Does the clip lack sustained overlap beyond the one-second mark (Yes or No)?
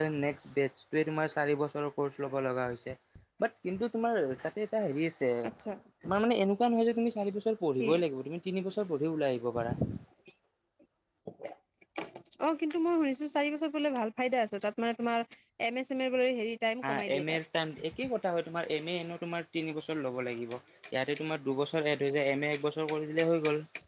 Yes